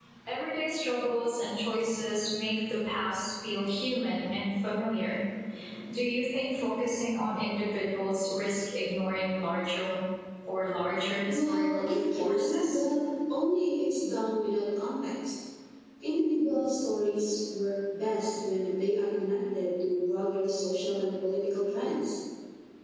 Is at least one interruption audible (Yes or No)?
Yes